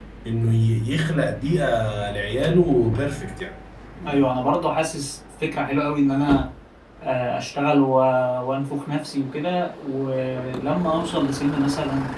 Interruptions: none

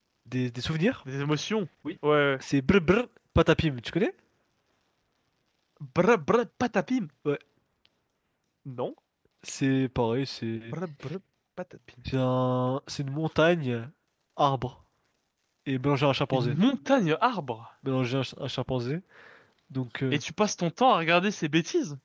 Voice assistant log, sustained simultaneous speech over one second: none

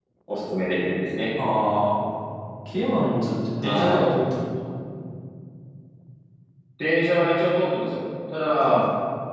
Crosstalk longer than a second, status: none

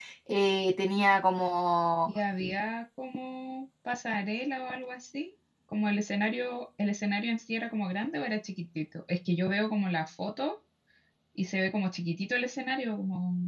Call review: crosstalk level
none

